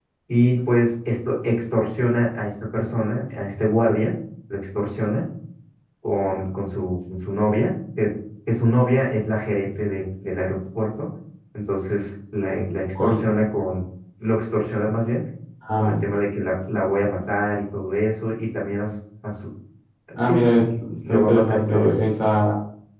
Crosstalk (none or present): present